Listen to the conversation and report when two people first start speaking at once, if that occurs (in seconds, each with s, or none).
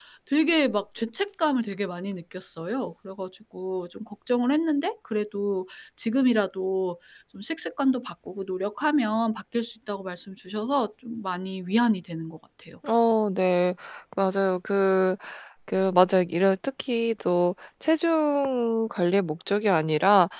none